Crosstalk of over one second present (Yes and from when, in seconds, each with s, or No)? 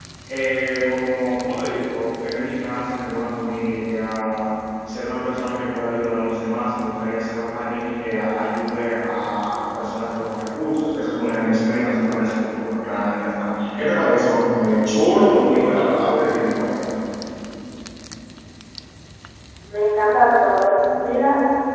No